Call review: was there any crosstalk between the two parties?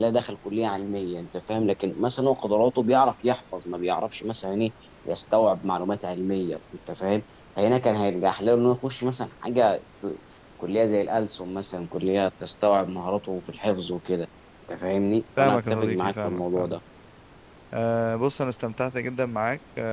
Yes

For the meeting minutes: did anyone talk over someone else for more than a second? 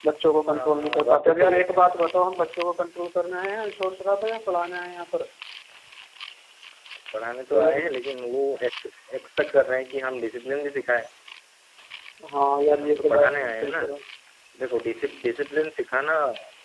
Yes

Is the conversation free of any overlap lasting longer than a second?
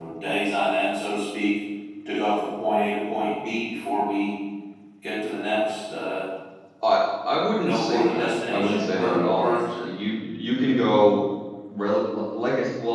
No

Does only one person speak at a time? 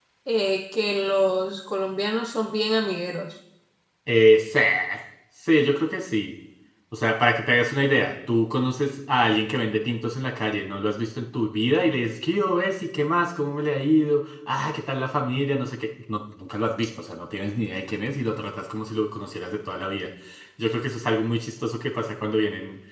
Yes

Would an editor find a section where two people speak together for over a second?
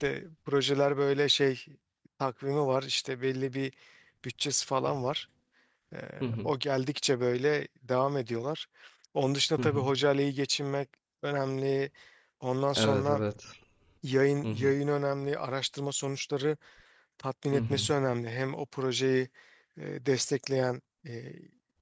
No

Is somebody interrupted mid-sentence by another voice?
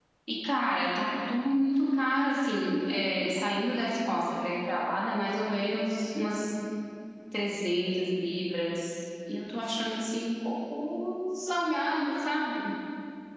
No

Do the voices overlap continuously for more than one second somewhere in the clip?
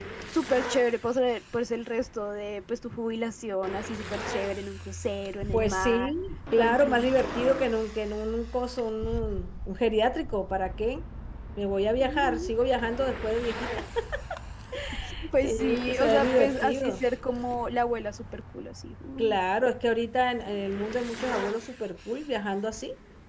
Yes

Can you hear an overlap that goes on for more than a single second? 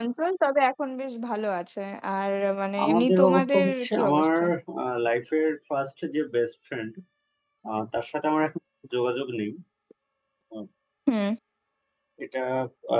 Yes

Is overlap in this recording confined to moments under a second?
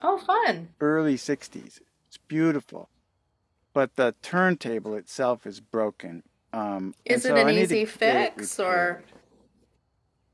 No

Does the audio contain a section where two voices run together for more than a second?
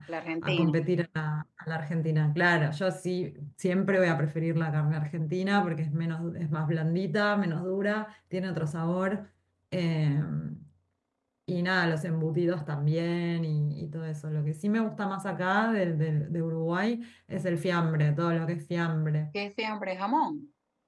No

